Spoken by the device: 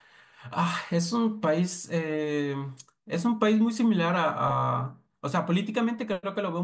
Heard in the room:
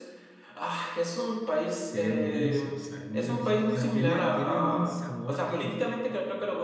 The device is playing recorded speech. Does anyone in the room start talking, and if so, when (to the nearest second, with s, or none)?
2 s